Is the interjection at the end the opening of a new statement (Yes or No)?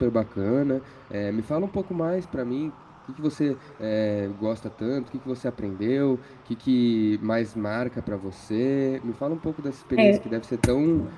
No